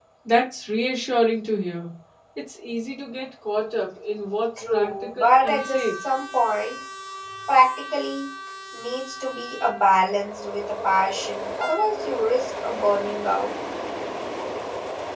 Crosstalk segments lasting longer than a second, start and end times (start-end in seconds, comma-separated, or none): 4.6-5.9